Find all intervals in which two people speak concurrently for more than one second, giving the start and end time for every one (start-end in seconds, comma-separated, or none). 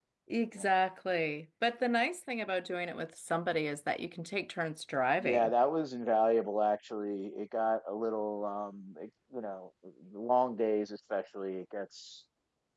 none